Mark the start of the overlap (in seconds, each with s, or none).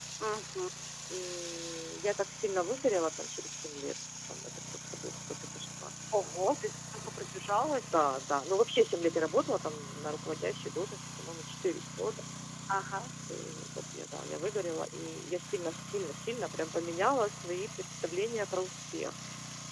none